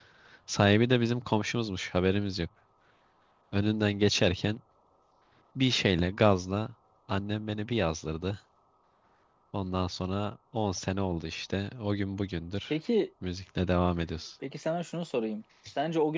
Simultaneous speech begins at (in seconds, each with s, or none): none